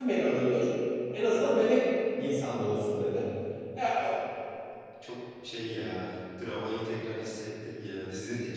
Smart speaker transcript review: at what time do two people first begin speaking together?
none

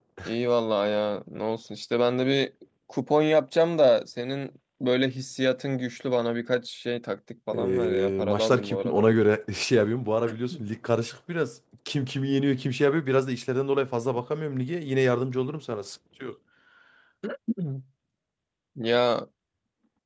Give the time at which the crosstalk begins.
7.5 s

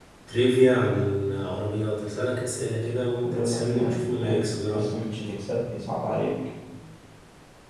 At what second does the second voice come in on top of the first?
3.2 s

